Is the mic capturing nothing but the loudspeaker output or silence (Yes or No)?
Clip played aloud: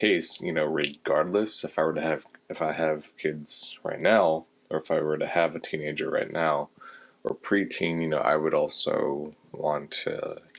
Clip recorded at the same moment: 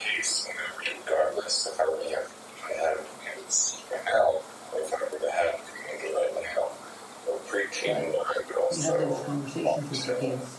No